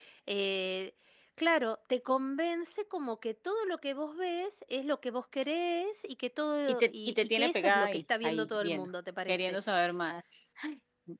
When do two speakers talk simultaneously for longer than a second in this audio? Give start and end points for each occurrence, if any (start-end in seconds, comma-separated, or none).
6.7-8.9